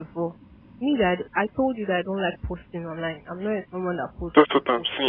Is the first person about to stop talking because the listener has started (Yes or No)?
Yes